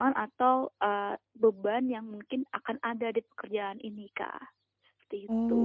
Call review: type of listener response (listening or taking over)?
taking over